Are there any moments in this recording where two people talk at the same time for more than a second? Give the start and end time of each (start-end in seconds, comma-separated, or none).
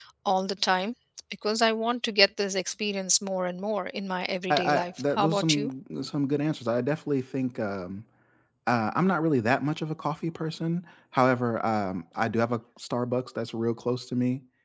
4.5-5.7